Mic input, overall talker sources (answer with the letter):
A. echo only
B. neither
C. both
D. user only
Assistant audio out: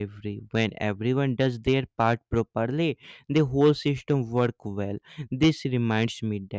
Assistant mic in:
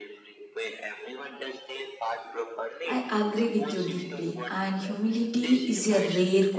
C